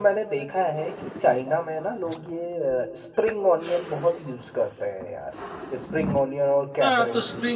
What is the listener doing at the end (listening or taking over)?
taking over